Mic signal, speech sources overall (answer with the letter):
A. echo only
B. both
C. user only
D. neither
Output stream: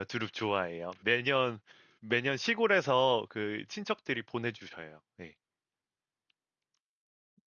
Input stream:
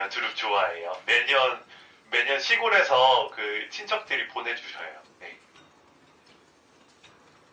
A